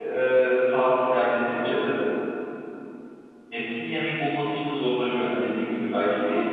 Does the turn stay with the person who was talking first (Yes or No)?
No